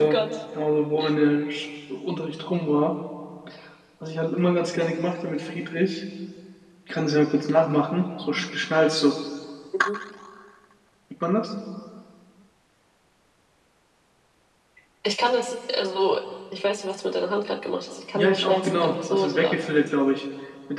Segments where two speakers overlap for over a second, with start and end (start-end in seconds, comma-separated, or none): 18.1-19.6